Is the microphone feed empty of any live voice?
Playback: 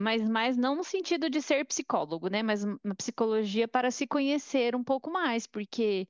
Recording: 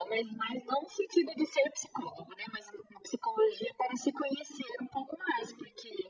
Yes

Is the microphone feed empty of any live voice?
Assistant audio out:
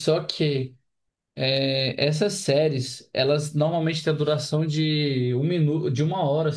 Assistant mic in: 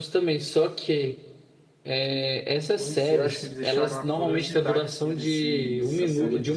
No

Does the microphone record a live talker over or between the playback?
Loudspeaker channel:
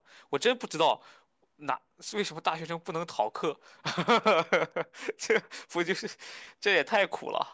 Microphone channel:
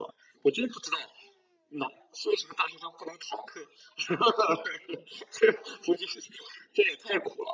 No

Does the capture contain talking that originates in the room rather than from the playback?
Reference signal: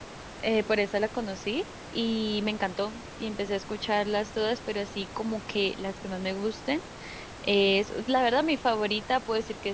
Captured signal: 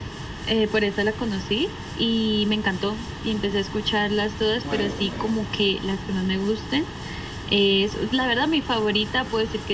Yes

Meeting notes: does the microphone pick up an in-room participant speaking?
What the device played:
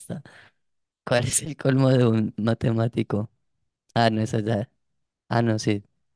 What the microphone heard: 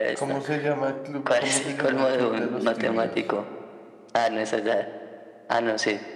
Yes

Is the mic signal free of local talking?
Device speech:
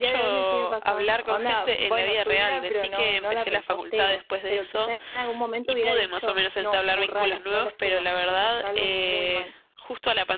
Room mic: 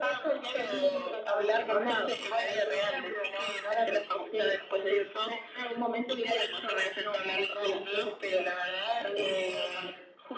Yes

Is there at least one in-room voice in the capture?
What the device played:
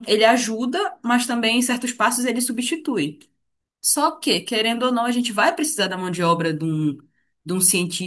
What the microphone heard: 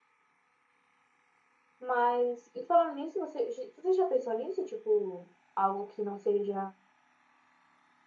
Yes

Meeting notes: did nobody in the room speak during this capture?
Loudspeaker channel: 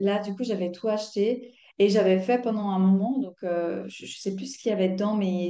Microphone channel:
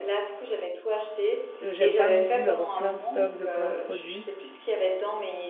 No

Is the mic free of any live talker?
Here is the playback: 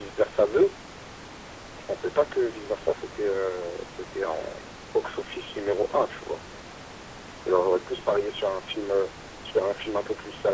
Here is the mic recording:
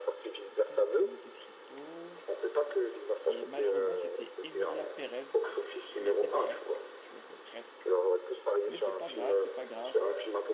No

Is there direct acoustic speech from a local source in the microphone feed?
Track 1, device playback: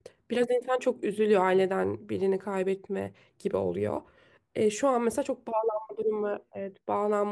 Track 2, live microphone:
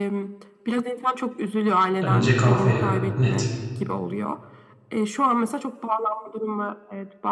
Yes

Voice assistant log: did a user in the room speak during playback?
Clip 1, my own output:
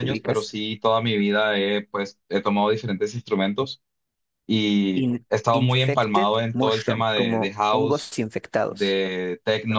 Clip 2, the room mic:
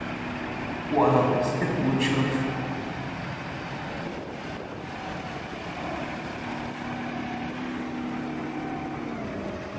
Yes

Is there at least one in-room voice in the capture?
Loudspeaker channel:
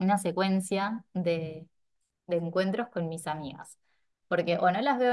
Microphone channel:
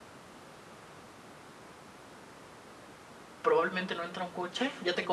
Yes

